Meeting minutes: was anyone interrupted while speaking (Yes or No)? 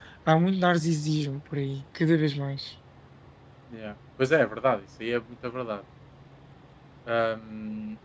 No